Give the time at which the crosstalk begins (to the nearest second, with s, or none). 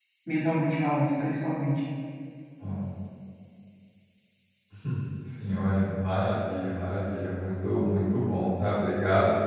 none